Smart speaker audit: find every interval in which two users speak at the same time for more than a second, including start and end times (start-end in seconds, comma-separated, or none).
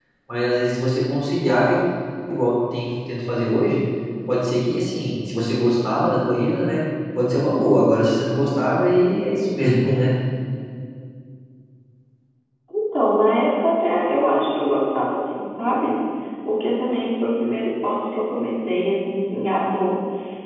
none